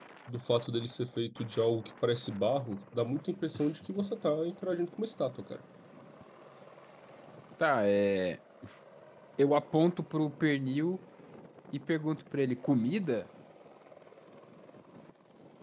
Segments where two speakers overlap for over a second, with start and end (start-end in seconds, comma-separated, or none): none